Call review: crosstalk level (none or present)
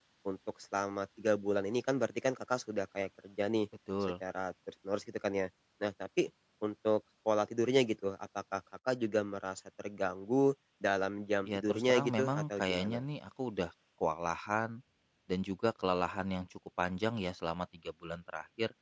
present